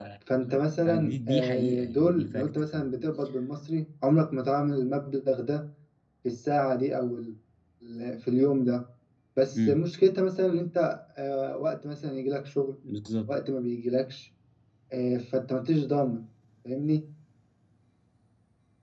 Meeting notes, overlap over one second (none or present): present